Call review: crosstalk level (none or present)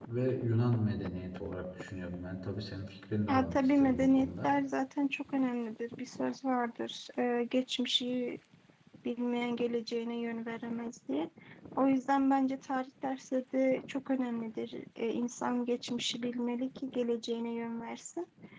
present